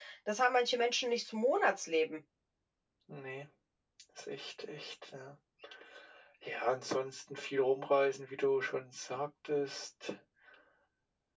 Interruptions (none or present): none